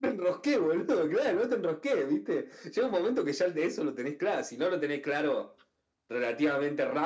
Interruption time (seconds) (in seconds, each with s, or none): none